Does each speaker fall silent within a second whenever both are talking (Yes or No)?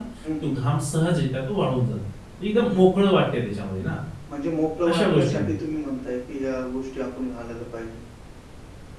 Yes